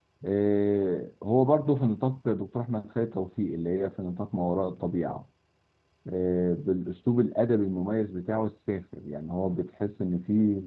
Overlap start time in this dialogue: none

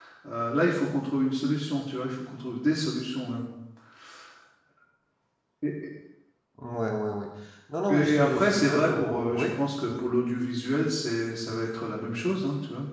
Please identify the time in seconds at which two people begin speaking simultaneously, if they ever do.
8 s

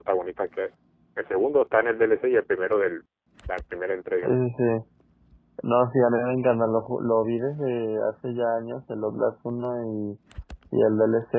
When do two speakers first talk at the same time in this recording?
none

